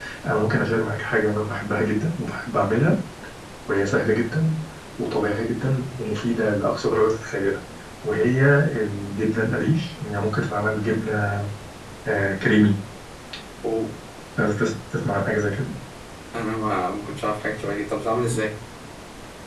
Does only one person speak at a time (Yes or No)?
Yes